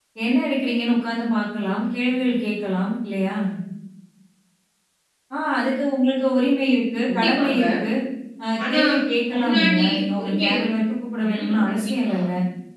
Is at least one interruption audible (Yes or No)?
Yes